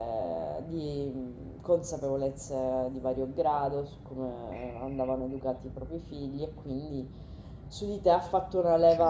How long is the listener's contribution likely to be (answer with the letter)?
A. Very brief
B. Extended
A